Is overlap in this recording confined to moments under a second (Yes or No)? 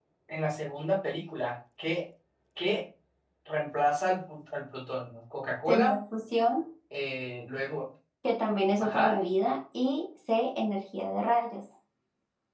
Yes